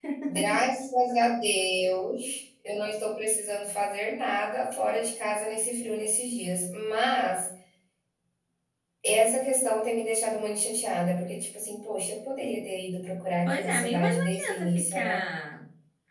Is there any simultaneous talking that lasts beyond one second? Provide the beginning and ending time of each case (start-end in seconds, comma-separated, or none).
13.5-15.2